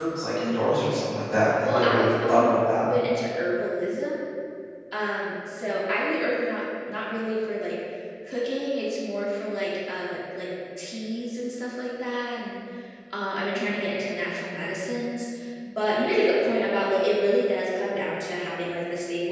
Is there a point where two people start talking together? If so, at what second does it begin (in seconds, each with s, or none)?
1.6 s